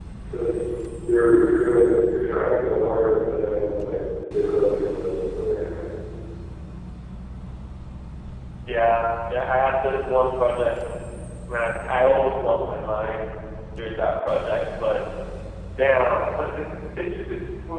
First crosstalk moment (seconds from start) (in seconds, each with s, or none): none